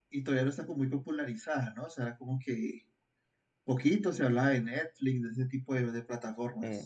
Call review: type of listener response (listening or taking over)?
taking over